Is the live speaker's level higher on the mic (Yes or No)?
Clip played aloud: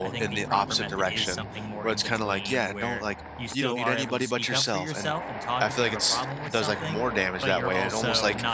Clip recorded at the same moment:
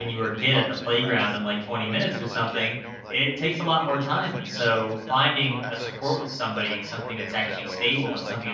Yes